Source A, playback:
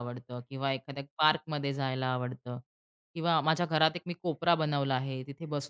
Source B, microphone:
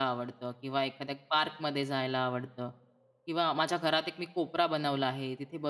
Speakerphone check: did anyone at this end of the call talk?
No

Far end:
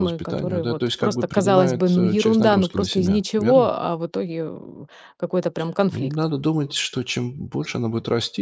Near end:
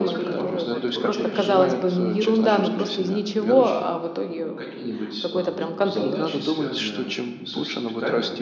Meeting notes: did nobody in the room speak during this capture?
No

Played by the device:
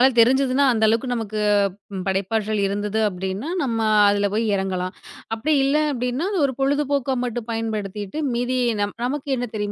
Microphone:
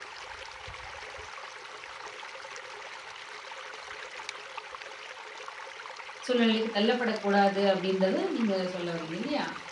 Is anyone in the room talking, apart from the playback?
Yes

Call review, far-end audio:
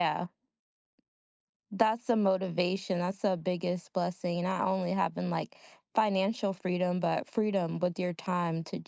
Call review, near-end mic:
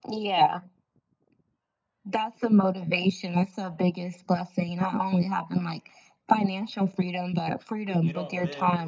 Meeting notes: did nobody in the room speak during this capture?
No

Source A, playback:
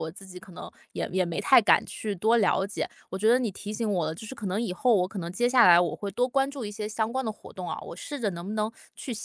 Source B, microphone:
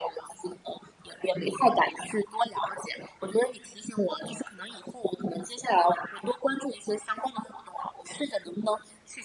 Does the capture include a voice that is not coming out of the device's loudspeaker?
No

